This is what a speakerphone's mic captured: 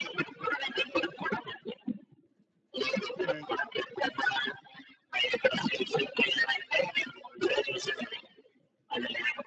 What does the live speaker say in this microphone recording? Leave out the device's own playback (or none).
హ్మ్.